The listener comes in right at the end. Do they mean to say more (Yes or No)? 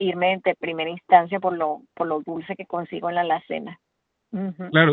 Yes